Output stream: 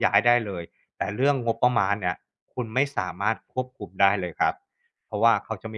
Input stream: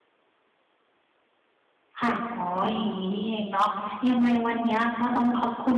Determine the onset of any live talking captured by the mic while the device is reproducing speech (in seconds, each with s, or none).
2.0 s